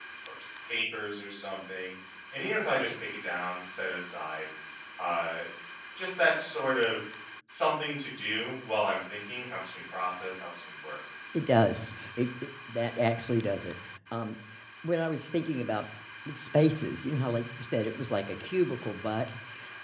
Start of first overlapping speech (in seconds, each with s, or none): none